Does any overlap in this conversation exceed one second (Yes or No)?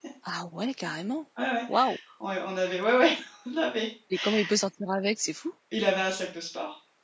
No